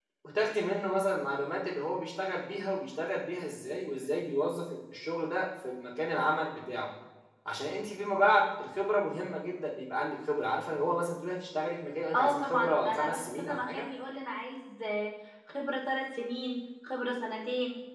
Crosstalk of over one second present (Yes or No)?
Yes